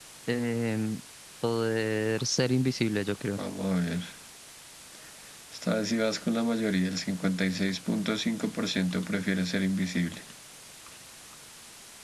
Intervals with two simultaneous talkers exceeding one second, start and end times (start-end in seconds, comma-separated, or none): none